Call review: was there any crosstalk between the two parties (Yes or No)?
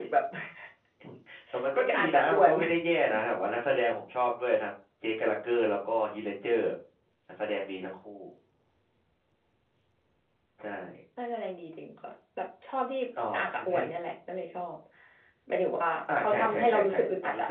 Yes